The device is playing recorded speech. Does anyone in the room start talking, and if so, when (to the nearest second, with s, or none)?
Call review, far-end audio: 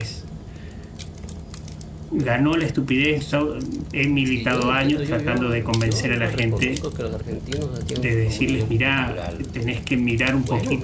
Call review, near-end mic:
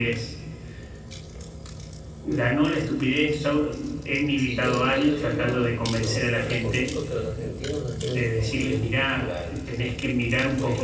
none